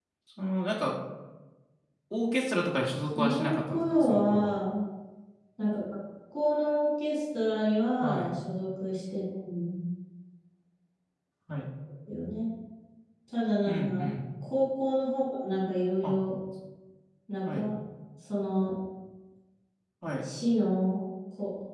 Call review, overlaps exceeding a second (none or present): present